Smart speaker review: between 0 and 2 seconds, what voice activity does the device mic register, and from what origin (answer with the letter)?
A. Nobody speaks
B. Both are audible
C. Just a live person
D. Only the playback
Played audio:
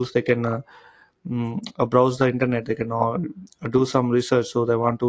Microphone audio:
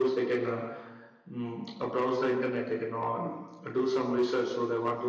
D